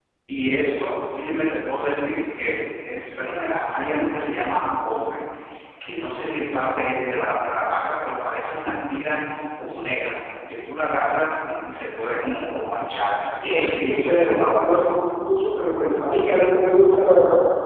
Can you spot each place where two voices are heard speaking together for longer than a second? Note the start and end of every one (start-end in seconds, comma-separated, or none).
13.4-14.9